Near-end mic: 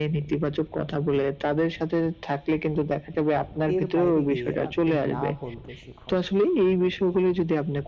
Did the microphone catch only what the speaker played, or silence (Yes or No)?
No